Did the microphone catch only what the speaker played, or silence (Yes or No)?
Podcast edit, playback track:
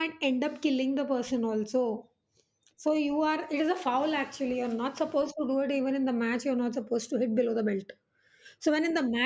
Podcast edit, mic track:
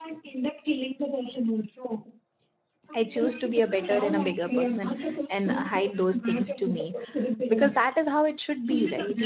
No